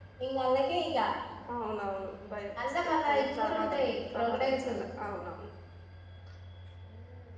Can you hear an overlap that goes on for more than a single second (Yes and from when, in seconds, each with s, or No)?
Yes, from 2.6 s